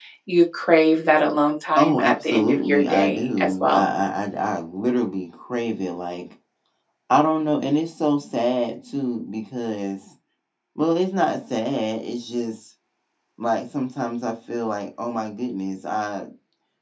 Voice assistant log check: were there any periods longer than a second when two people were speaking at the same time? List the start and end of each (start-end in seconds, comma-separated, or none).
1.8-3.9